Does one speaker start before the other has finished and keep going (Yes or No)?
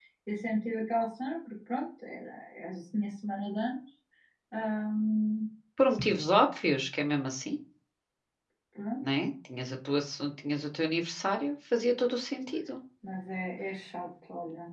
No